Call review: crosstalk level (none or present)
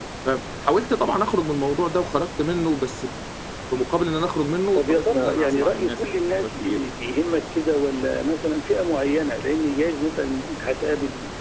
present